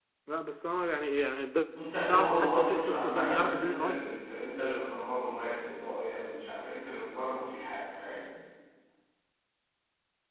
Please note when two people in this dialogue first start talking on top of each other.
2.1 s

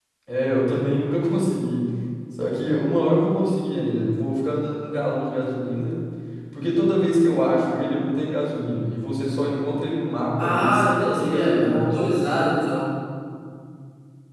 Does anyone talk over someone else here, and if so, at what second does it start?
10.4 s

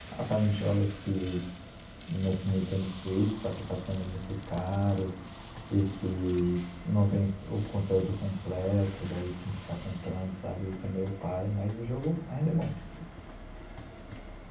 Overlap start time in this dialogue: none

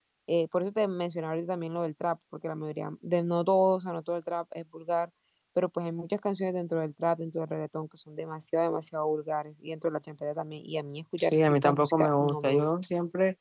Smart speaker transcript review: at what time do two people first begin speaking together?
11.2 s

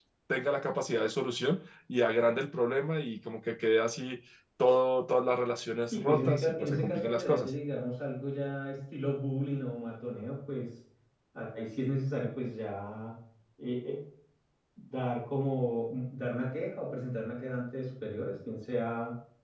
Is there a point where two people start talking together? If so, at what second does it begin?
5.9 s

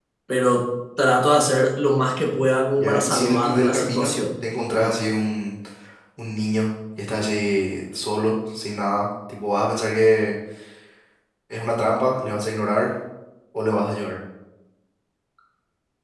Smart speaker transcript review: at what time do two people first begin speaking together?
2.8 s

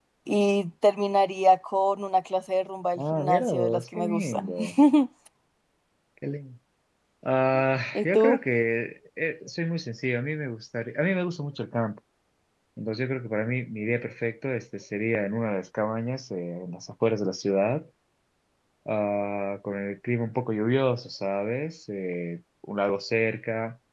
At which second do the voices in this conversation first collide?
3.0 s

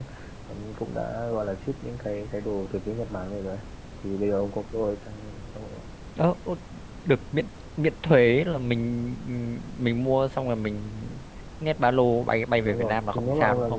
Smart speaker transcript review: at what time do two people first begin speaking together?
12.6 s

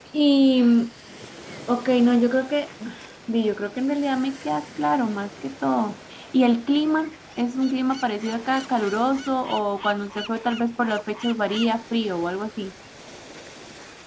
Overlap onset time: none

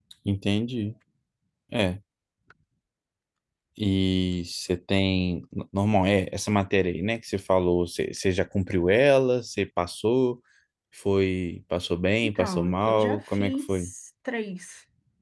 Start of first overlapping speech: 12.2 s

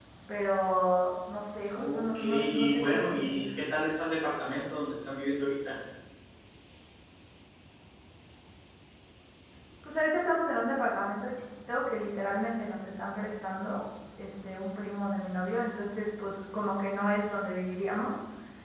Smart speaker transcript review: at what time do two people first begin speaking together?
1.7 s

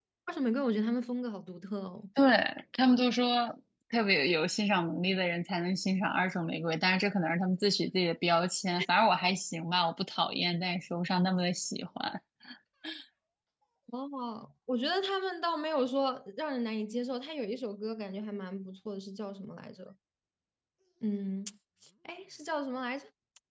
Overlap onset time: none

